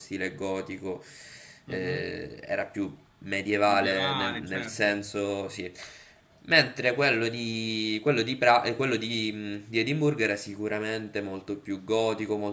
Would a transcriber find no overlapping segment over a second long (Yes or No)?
No